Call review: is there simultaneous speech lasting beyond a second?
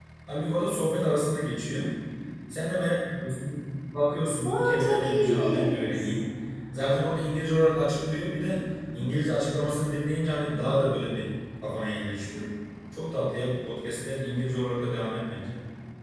Yes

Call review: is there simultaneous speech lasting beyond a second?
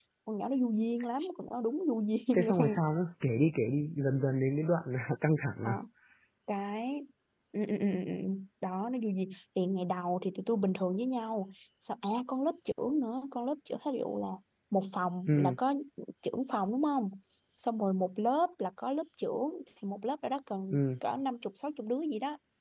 No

